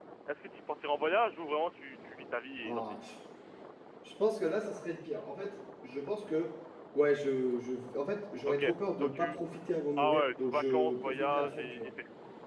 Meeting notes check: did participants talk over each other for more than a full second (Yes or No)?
Yes